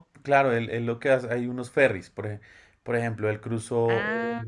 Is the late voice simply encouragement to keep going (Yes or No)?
Yes